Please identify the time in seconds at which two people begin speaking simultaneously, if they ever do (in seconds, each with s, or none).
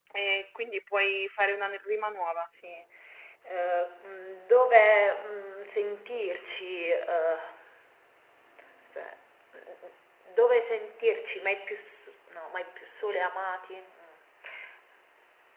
none